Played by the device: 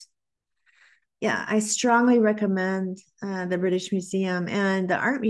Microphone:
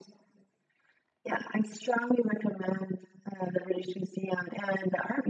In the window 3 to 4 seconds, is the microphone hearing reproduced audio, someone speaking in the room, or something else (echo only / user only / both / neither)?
echo only